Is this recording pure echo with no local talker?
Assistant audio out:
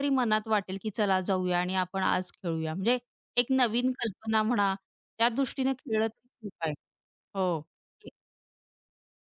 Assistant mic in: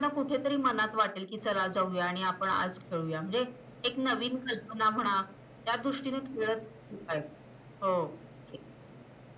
Yes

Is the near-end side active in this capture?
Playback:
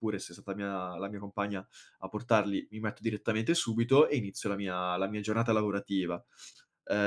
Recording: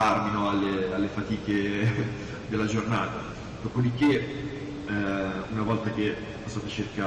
Yes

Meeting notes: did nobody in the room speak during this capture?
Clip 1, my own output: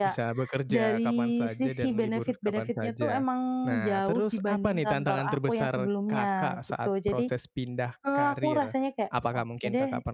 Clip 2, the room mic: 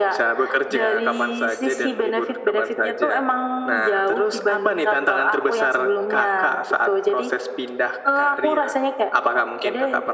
Yes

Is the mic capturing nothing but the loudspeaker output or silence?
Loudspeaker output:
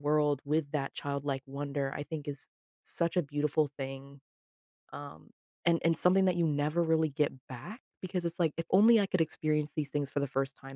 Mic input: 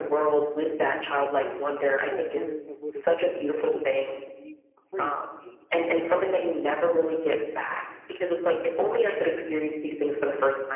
No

